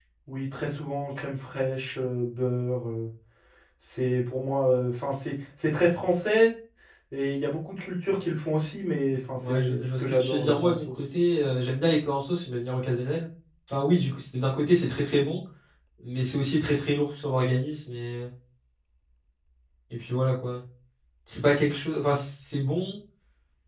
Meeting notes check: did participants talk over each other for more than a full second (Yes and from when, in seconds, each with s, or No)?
Yes, from 9.4 s